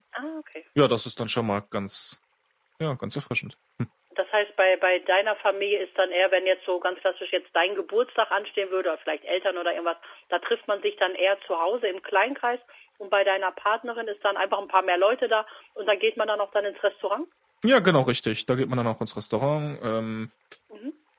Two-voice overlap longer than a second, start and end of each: none

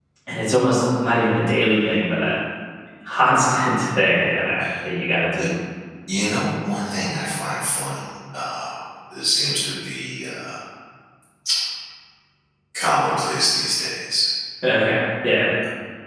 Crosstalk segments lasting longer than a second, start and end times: none

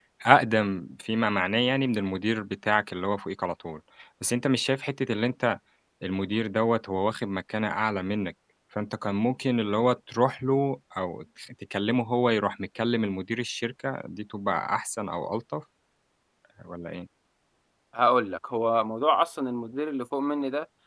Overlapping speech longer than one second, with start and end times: none

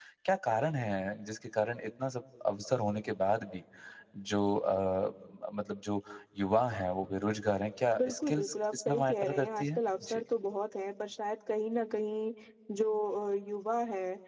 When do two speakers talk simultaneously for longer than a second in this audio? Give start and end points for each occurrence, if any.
8.0-10.2

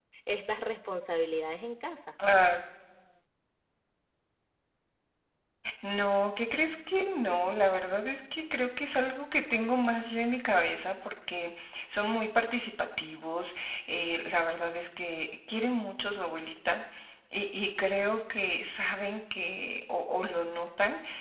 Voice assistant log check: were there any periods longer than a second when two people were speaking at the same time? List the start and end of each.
none

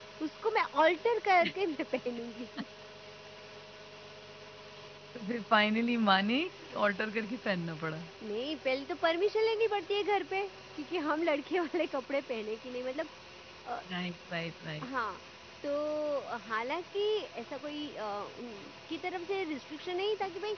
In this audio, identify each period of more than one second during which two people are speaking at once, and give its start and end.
none

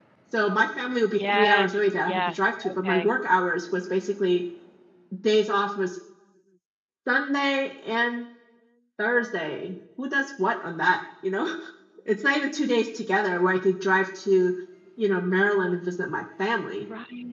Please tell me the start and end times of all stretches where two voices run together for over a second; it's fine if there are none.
1.1-3.1

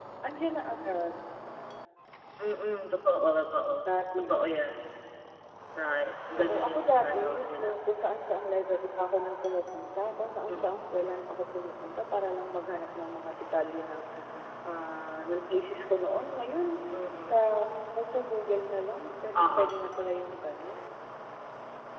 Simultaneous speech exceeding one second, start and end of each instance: 6.4-7.7

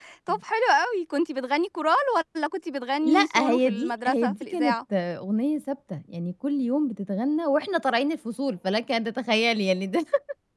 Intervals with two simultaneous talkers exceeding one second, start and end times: 3.0-4.8

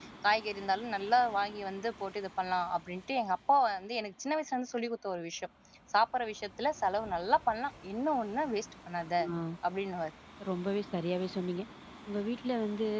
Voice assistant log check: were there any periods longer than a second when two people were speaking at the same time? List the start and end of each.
none

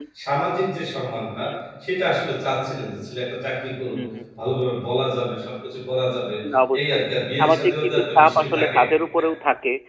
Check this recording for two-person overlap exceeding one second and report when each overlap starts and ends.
7.4-8.8

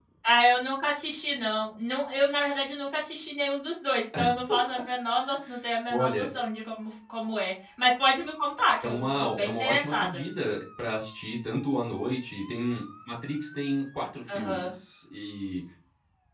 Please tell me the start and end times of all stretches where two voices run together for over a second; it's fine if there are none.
8.8-10.1

